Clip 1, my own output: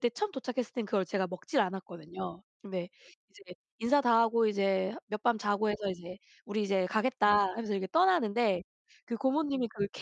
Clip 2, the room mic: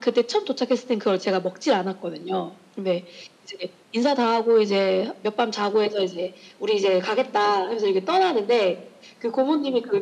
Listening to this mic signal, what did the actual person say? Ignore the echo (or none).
none